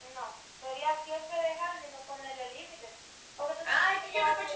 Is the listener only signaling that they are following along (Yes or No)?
No